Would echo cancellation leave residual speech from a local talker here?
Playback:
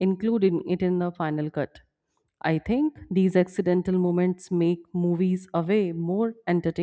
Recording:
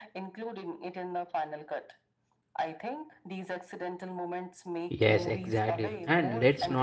Yes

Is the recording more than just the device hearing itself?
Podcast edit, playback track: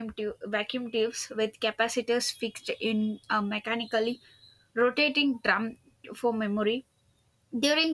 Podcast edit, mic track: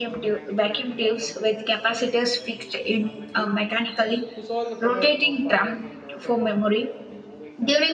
Yes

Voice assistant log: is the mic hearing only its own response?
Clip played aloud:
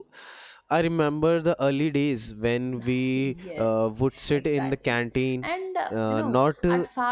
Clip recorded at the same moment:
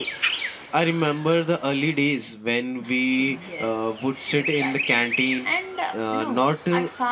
Yes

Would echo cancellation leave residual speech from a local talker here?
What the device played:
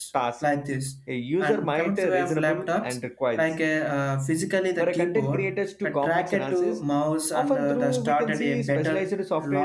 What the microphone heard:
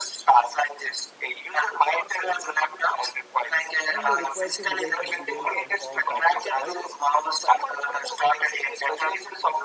Yes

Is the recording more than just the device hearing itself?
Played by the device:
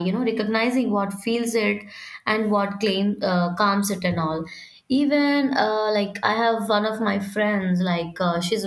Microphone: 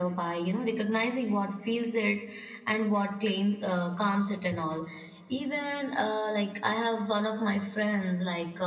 No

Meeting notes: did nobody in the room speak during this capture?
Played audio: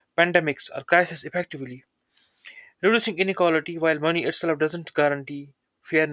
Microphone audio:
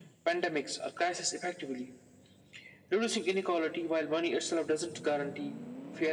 Yes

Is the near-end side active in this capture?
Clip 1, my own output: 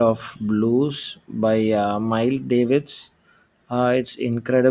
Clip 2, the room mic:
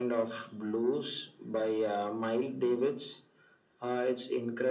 No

